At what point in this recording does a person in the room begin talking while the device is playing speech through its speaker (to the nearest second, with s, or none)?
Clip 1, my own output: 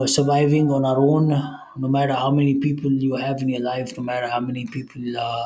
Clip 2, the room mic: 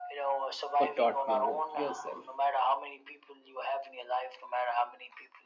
1 s